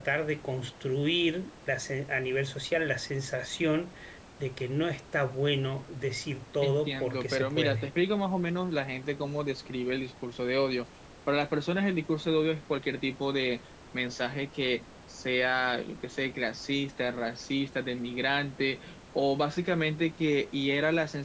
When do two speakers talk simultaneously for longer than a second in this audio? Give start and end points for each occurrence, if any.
6.6-7.9

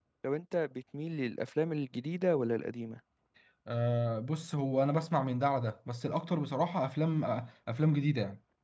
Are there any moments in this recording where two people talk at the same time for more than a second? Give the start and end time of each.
none

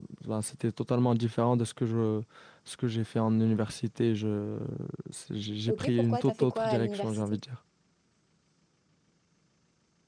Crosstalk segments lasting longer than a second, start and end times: 5.7-7.4

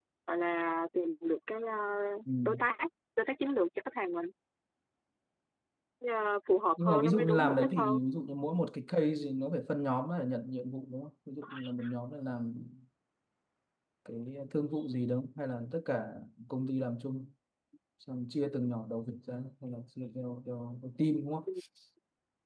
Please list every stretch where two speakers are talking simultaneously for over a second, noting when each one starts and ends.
6.8-8.0

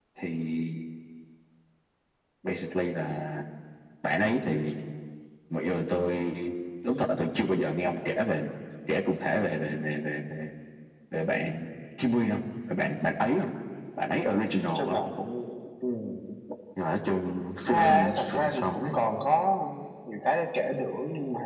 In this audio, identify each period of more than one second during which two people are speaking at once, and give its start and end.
17.7-18.9

